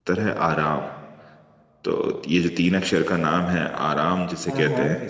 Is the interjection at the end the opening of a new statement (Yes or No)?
No